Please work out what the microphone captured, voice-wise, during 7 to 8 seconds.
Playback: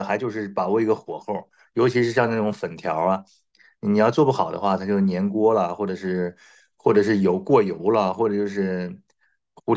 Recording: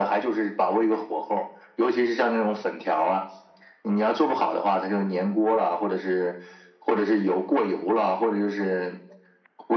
echo only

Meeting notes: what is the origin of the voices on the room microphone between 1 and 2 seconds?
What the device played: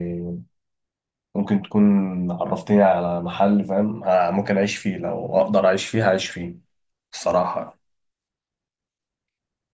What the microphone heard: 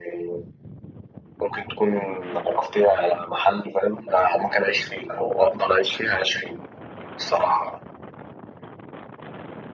echo only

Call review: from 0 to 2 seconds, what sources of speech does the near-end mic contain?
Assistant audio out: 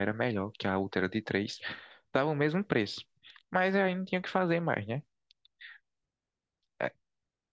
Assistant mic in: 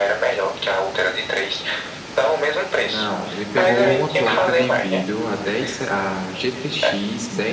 echo only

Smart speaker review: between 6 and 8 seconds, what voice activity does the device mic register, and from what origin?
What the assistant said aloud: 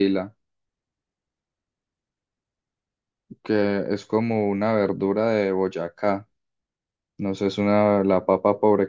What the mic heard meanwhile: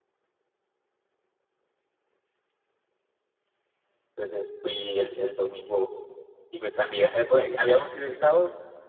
user only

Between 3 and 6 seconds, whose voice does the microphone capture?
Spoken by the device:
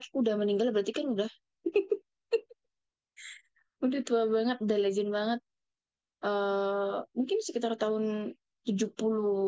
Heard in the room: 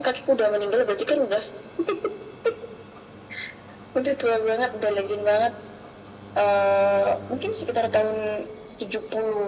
echo only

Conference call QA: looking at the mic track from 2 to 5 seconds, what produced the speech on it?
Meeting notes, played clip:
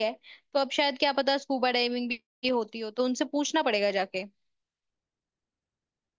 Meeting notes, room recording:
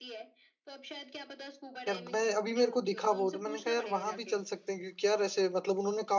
both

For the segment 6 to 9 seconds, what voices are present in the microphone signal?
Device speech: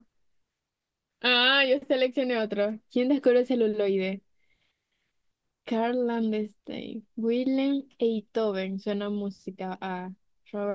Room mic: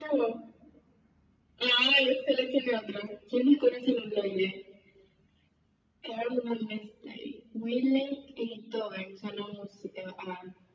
echo only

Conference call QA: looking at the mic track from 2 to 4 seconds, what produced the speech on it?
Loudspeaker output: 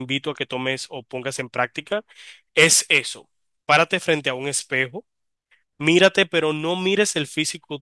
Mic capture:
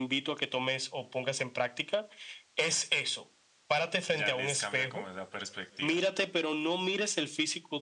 echo only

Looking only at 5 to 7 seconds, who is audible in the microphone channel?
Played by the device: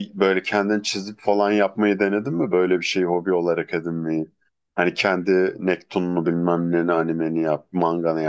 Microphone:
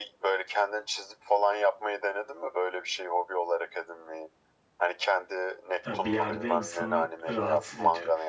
both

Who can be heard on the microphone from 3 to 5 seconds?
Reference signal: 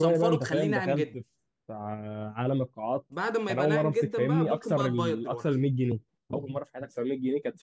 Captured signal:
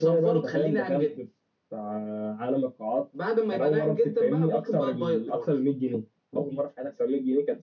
echo only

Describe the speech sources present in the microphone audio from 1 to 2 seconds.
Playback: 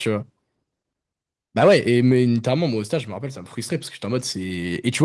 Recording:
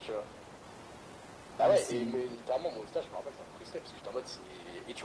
both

